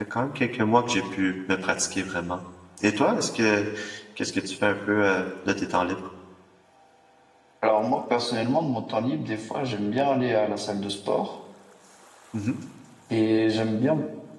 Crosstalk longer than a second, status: none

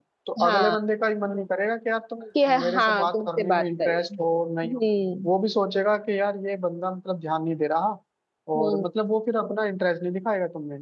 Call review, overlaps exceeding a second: present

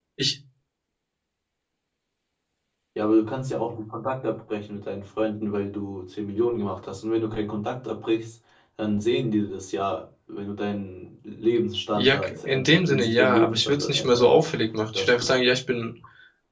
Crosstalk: present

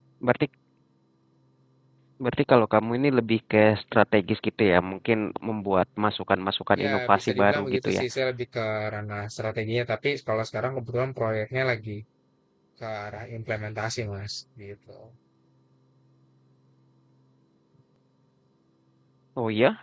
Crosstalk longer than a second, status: present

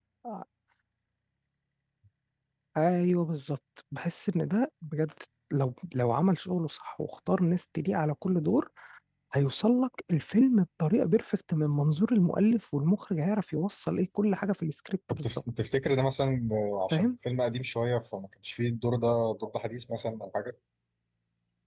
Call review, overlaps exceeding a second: none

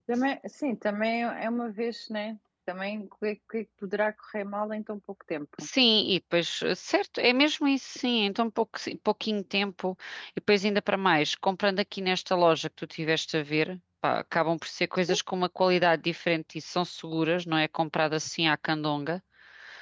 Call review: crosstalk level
none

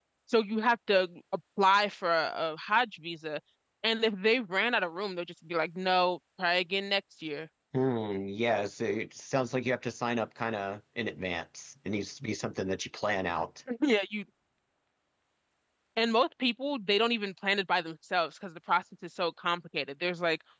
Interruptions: none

